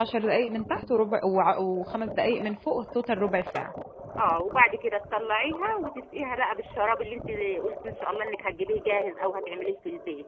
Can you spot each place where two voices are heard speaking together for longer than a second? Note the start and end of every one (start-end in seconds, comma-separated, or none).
none